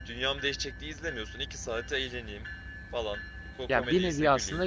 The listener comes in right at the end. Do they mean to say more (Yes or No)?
Yes